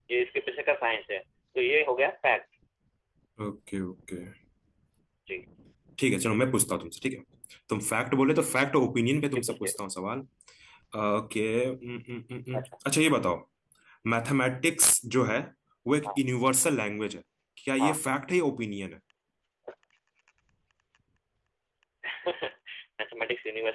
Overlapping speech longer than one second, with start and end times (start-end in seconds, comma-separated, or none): none